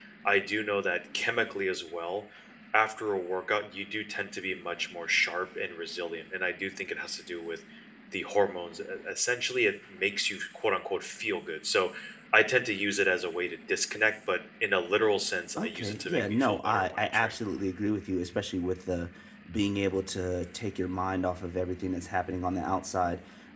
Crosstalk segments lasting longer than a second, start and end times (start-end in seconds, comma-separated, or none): 15.6-17.4